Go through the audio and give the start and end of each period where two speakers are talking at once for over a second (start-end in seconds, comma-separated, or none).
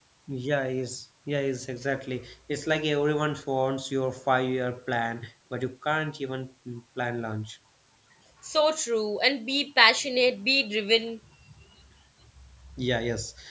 none